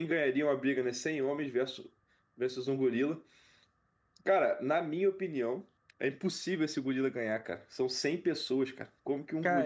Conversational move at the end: taking over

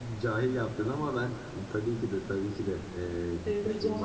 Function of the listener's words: taking over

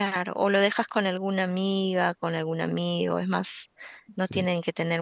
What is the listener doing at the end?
listening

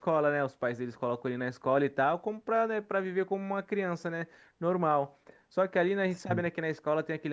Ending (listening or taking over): listening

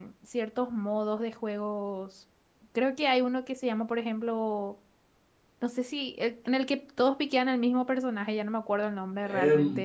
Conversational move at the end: taking over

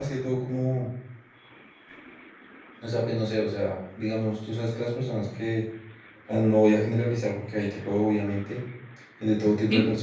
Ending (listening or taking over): listening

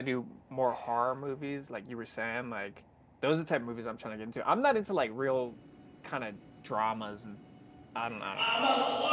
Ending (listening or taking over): taking over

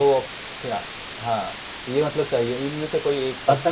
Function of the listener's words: taking over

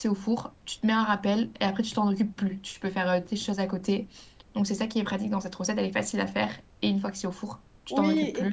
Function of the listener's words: taking over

